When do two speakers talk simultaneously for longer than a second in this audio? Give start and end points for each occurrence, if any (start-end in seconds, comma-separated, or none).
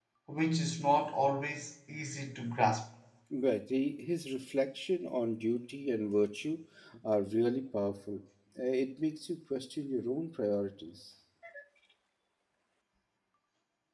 none